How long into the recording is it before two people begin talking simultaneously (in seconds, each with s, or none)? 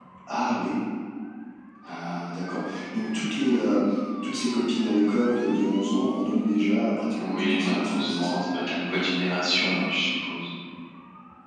7.2 s